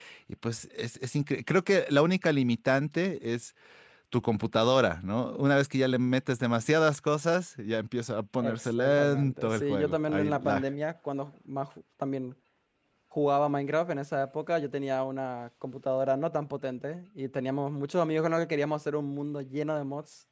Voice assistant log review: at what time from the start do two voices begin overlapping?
8 s

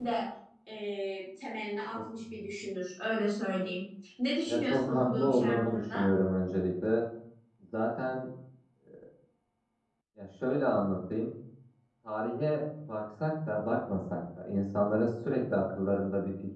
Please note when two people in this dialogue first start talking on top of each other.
4 s

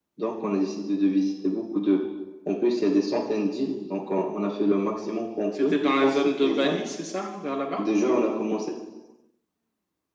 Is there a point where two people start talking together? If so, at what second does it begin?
6 s

